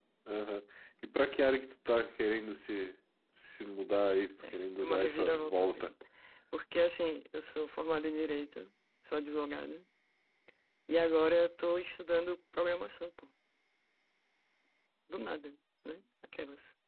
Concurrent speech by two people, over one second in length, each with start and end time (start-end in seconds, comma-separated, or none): 4.5-5.9